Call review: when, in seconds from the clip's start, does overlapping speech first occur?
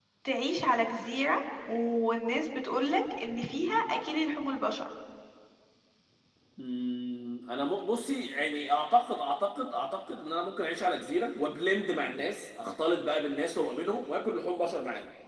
none

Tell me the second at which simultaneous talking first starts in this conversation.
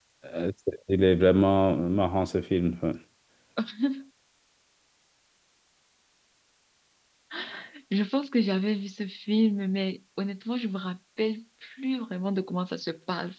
none

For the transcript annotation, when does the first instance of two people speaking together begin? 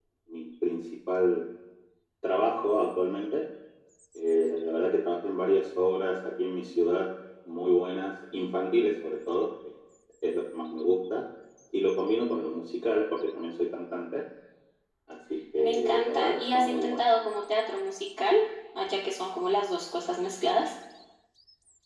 15.6 s

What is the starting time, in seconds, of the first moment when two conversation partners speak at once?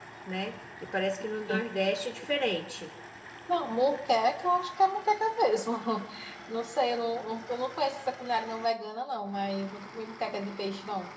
none

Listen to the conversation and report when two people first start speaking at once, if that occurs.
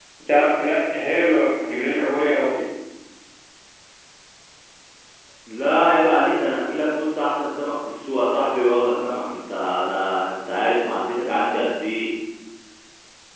none

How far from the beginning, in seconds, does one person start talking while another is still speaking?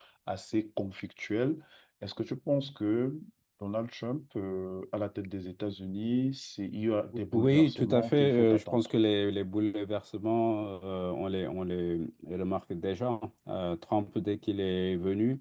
7.3 s

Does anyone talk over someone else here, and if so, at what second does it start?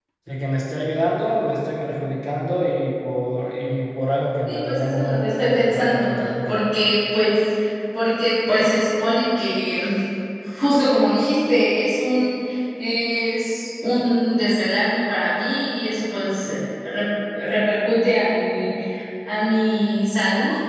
4.5 s

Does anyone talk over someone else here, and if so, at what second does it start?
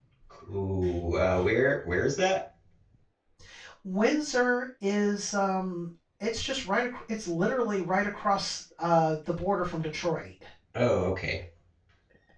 none

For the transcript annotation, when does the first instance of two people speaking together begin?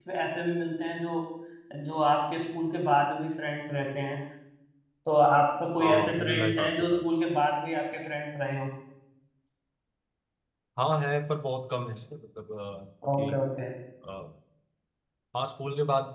5.8 s

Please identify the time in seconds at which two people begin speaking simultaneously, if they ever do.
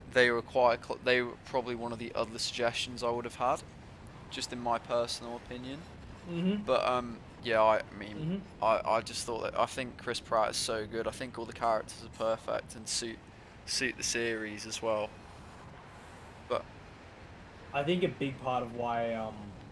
none

